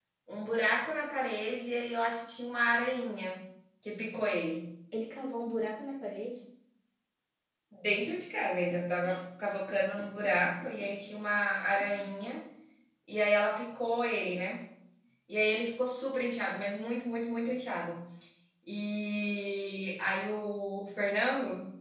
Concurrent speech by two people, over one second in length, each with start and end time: none

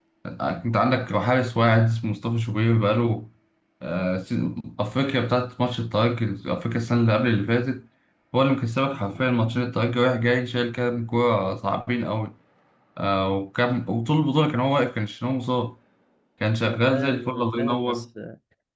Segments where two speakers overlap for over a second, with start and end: 16.6-18.1

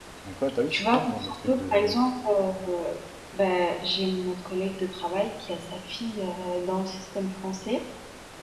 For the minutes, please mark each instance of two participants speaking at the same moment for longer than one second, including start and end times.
0.7-2.0

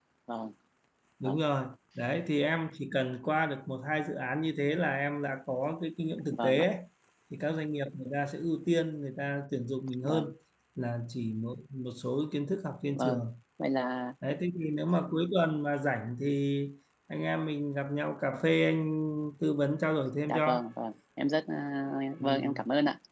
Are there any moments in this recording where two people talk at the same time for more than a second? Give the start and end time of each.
none

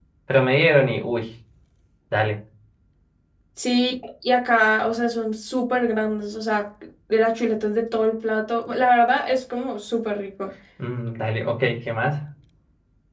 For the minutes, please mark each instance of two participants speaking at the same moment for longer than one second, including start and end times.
none

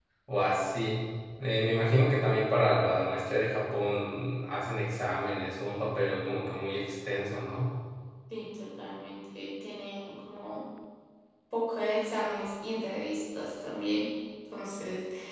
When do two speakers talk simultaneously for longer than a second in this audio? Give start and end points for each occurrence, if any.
none

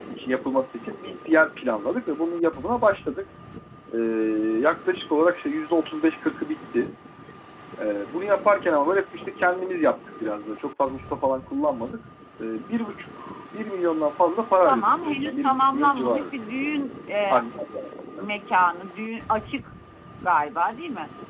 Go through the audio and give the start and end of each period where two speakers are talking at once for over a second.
14.7-16.2

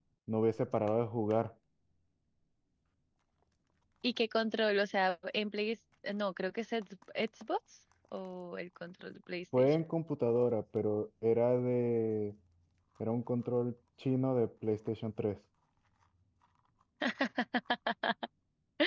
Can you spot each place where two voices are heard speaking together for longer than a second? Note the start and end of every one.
none

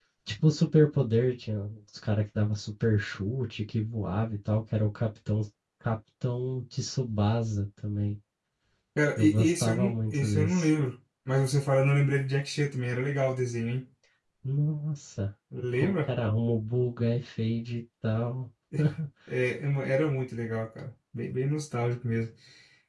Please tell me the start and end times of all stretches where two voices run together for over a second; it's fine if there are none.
9.2-10.7

